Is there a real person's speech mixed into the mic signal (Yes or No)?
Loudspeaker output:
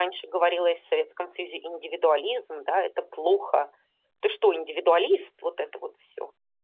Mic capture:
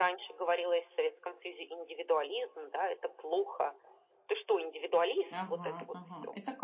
Yes